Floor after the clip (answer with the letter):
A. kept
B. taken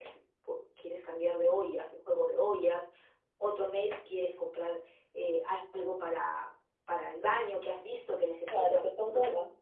B